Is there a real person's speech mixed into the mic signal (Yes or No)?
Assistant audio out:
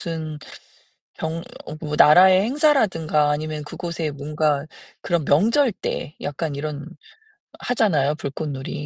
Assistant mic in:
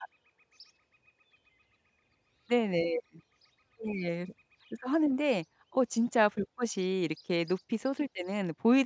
Yes